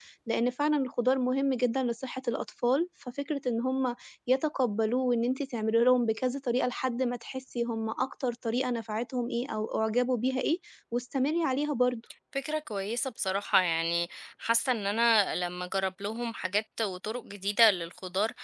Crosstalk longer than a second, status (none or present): none